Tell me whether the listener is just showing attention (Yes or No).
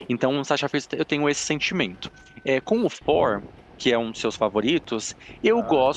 Yes